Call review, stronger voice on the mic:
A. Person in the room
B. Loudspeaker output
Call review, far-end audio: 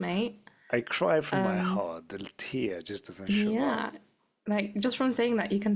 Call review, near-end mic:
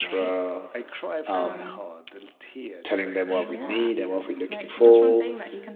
A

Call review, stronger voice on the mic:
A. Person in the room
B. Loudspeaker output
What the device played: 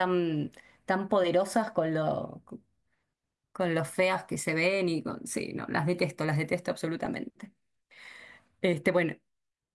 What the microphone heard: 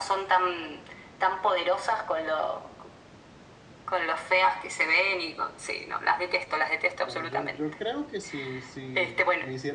B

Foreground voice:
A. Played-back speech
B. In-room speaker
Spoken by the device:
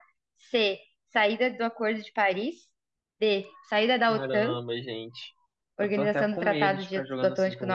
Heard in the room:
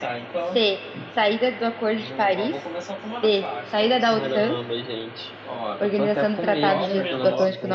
A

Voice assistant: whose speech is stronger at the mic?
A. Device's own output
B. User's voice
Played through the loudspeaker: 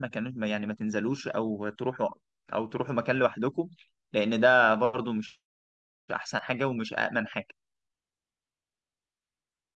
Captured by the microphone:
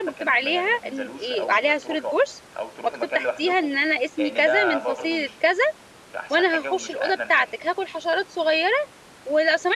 B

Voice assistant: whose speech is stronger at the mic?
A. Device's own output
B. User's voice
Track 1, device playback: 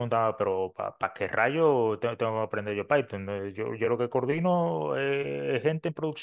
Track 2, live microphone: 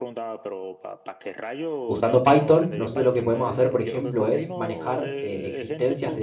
B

